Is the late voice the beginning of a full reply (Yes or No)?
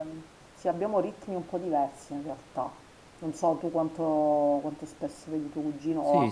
Yes